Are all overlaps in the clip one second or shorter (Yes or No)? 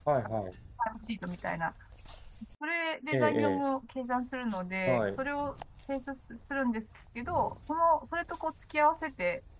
Yes